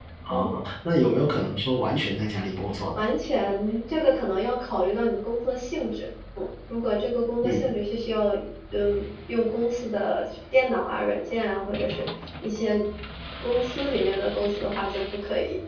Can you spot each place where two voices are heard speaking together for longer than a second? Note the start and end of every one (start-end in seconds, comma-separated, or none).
none